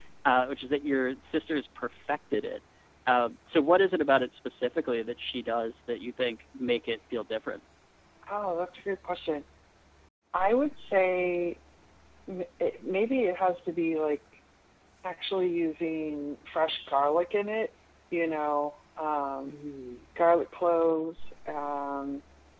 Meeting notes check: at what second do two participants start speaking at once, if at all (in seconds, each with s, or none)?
none